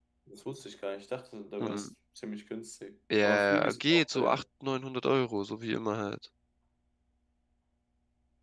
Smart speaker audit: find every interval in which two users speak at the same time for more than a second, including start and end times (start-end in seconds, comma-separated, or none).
3.2-4.4